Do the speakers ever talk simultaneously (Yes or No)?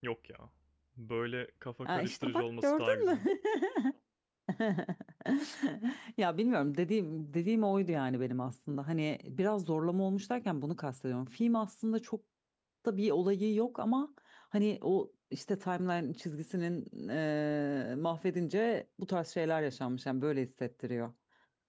Yes